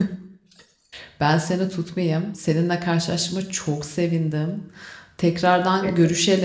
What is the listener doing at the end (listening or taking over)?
listening